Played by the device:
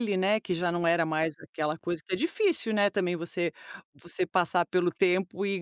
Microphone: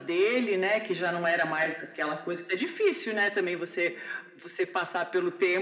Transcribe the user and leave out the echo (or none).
none